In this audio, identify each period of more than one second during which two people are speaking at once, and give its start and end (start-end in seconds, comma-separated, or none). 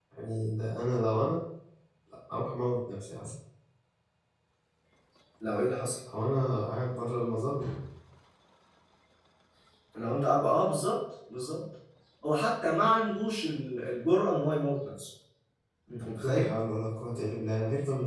none